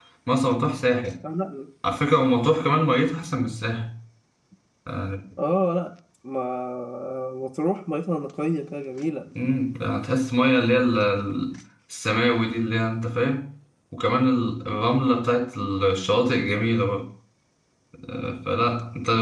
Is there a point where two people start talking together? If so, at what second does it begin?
none

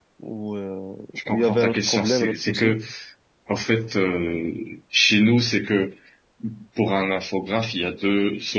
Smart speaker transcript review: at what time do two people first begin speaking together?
1 s

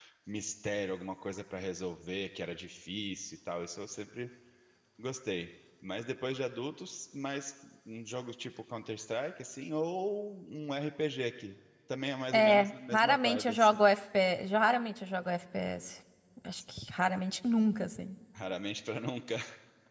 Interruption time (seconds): 12 s

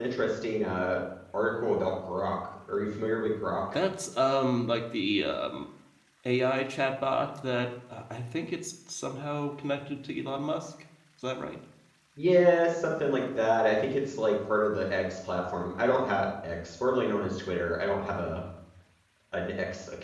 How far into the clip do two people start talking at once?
none

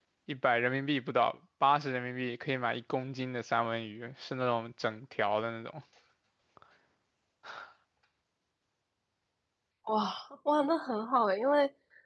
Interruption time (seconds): none

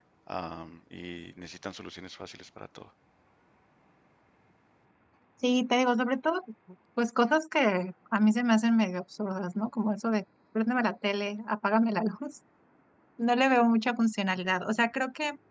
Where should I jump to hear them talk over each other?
none

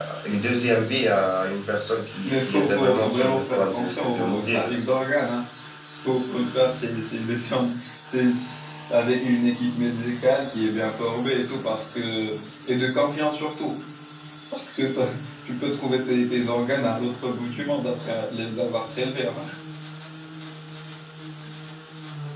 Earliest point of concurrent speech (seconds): 2 s

